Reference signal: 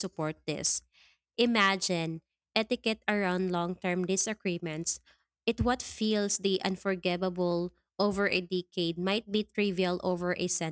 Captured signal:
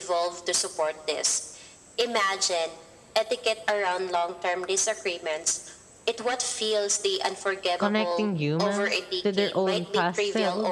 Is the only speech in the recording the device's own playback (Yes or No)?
No